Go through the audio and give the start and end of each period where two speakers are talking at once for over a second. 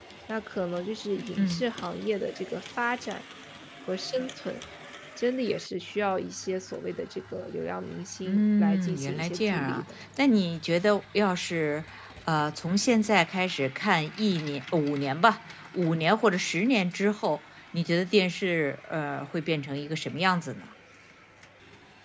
8.2-9.8

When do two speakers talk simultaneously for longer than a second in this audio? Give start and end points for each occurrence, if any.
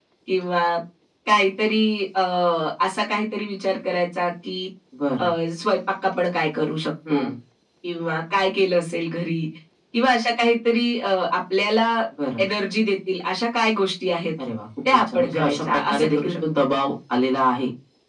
14.9-16.4

